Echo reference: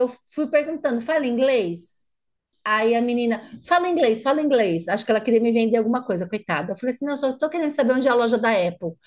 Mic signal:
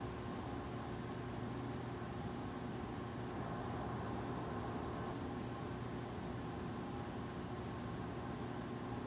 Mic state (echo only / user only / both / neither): neither